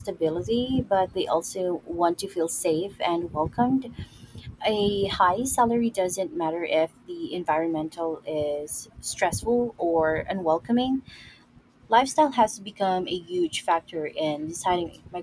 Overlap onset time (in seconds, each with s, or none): none